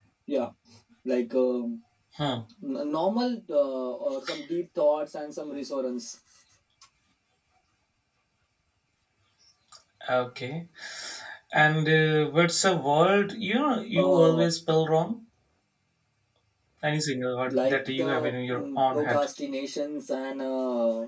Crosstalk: present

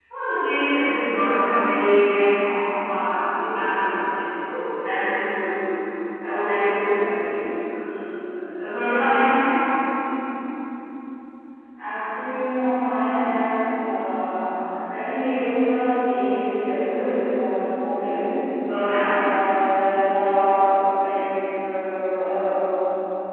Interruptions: none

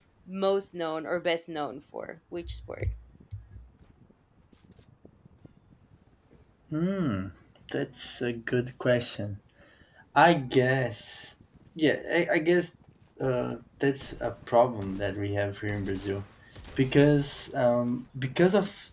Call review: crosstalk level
none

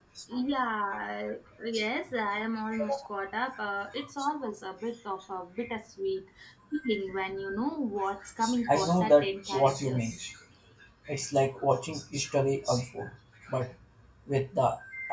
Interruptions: present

